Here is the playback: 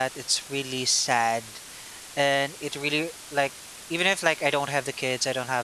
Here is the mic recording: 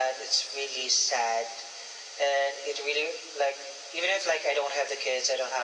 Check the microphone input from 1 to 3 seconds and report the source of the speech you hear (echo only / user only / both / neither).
echo only